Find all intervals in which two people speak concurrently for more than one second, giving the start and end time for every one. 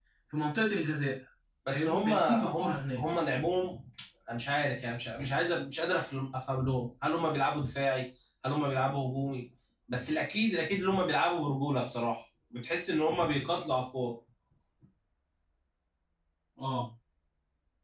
1.7-3.0

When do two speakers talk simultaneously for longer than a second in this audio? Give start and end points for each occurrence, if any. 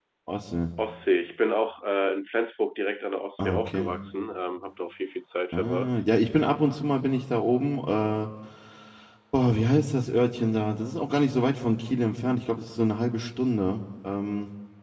none

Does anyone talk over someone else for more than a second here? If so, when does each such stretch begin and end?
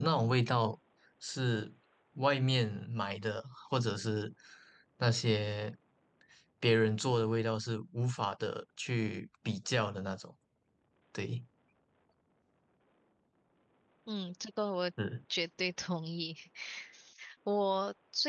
none

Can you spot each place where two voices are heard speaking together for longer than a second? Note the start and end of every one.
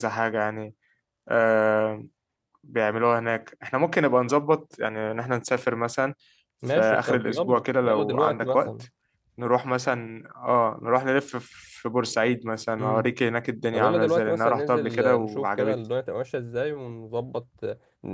6.8-8.7, 13.7-15.8

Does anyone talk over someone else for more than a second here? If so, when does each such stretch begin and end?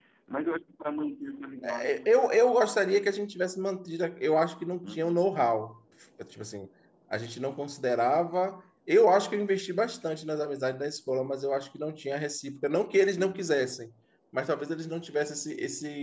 none

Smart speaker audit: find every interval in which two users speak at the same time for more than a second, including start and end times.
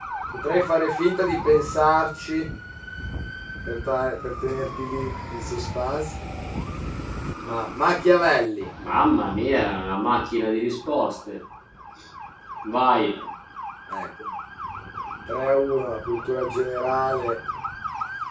none

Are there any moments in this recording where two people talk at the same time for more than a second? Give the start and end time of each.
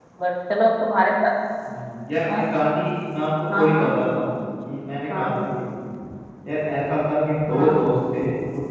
none

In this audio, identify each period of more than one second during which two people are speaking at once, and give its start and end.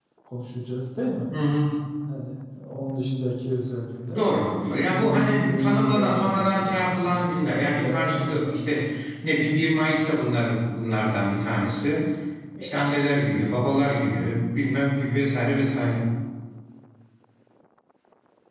4.9-8.7

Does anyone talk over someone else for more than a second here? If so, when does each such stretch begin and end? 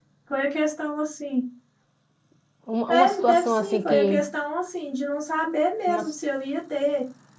2.9-4.2

